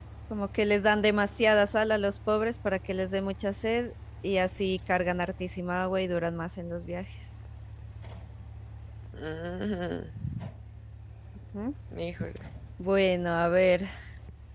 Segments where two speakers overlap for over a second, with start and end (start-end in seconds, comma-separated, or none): none